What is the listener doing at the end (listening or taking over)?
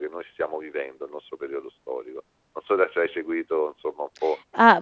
taking over